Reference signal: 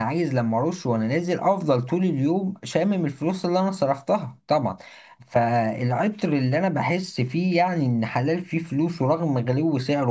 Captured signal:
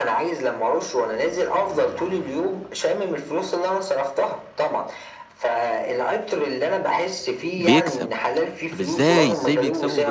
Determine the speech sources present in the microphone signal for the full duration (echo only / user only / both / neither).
both